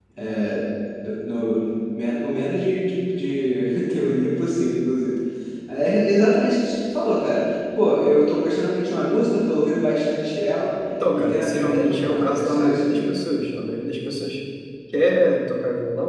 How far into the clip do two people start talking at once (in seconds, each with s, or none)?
11.1 s